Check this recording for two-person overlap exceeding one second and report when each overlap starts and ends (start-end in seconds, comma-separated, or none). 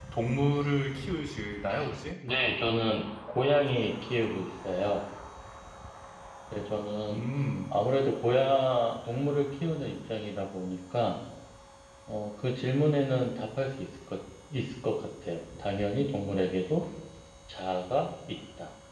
none